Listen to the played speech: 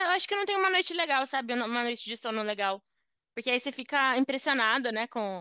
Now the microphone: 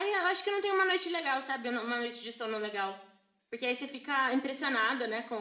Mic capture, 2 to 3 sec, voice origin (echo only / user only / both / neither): echo only